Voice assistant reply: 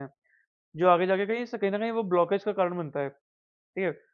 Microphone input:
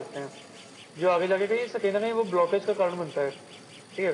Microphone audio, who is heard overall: echo only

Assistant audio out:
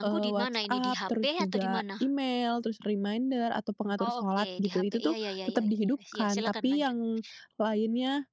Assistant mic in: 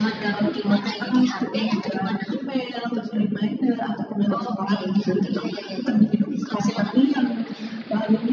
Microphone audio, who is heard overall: echo only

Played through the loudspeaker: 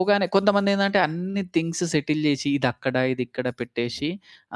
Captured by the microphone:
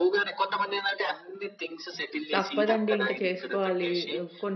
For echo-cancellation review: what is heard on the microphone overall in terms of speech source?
both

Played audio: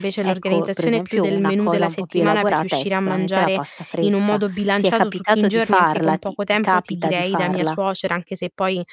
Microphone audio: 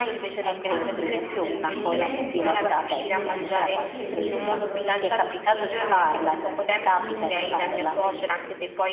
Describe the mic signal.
both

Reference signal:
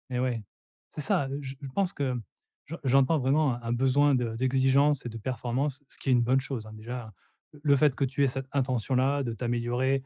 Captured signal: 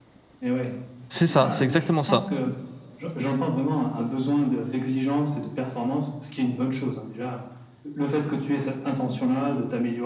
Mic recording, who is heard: both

